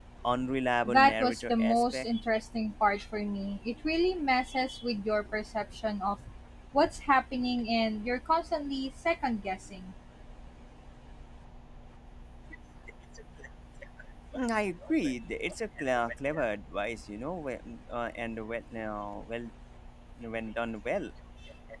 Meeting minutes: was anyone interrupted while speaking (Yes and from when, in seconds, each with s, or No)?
Yes, from 0.8 s